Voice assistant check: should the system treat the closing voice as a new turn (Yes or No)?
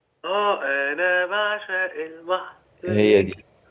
No